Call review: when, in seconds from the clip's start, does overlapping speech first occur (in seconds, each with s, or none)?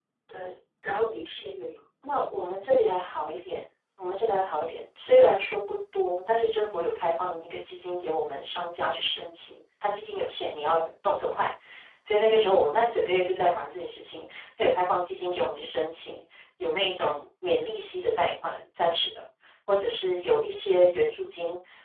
none